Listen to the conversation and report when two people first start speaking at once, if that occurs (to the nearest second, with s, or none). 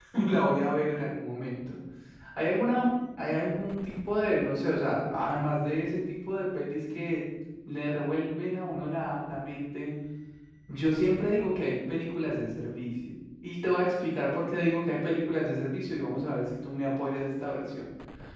none